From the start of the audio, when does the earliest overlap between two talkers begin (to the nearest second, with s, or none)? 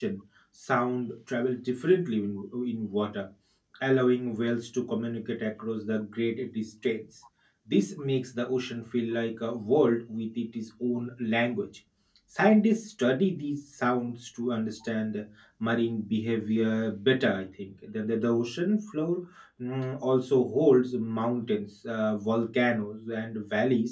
none